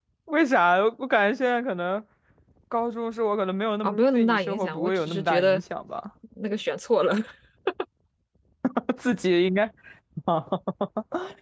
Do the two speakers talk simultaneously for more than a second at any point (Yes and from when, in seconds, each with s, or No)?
Yes, from 3.8 s